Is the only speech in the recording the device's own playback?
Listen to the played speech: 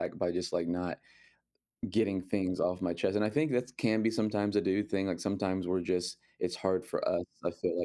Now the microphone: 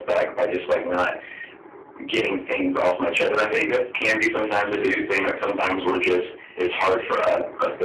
Yes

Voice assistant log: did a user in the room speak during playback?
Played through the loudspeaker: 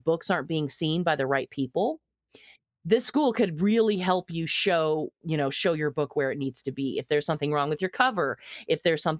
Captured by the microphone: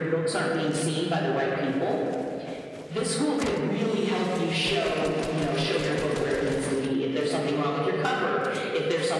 No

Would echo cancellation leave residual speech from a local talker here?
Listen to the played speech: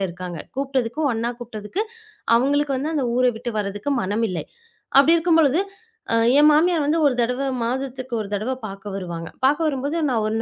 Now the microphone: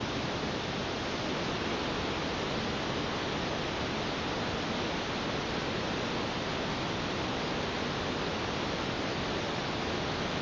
No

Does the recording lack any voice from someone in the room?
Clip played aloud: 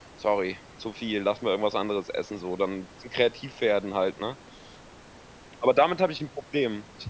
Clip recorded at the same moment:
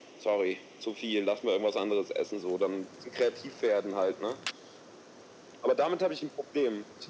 Yes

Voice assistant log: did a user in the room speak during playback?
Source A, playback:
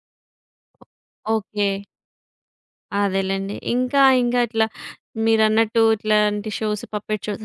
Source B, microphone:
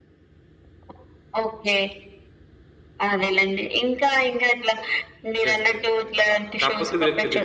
Yes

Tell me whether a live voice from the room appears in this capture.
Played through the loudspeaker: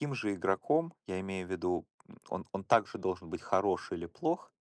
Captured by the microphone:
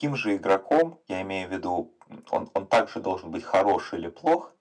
No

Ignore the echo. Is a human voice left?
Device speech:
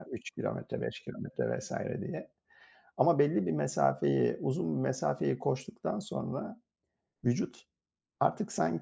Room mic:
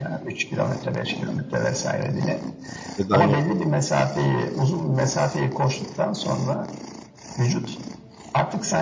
Yes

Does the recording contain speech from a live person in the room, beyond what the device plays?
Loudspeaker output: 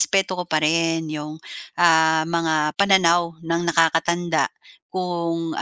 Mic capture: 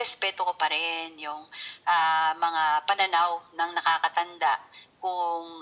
No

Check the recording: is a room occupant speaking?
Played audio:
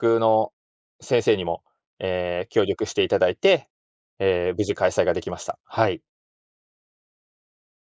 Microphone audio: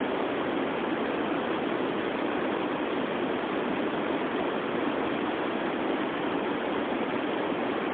No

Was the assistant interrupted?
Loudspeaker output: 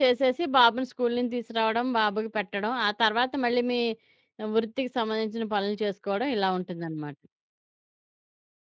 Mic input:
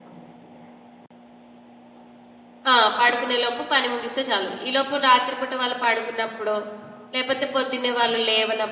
Yes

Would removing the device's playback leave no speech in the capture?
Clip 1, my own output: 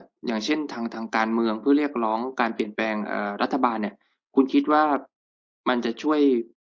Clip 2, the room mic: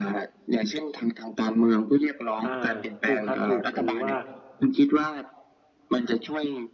No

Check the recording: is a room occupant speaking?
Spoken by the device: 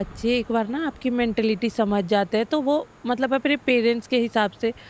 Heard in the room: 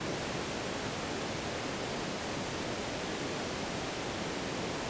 No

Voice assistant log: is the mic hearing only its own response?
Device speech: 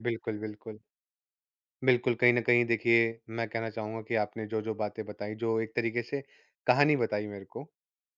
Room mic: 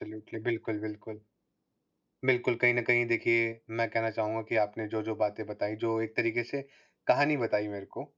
Yes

